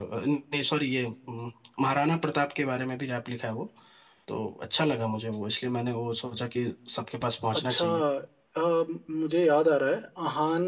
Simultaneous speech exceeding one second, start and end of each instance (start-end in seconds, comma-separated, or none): none